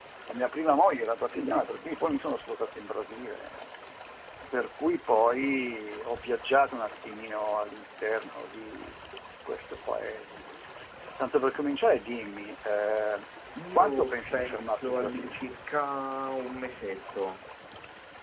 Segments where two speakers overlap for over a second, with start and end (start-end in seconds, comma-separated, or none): 13.8-15.4